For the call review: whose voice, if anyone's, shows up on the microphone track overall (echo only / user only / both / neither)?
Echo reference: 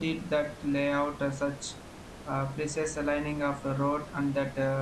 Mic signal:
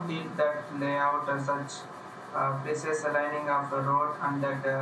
echo only